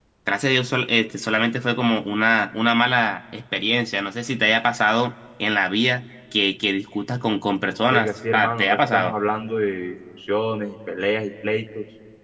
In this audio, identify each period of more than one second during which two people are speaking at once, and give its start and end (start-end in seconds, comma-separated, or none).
7.9-9.1